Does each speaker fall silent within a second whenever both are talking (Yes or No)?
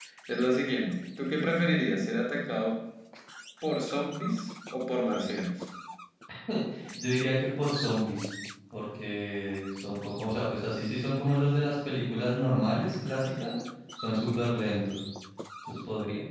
Yes